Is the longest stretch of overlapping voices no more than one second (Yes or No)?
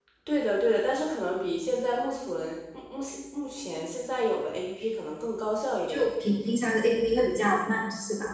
Yes